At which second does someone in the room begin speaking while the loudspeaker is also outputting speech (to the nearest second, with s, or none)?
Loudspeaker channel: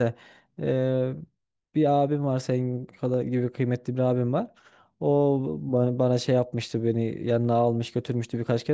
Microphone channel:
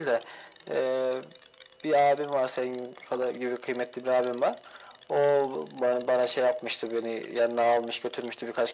none